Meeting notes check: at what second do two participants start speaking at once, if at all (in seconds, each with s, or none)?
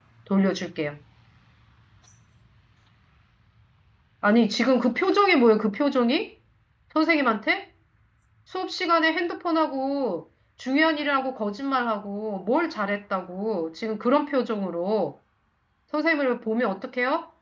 none